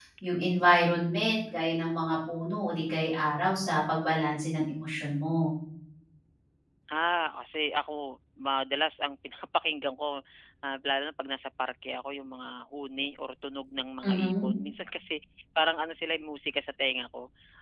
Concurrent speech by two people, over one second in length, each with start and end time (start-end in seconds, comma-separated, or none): none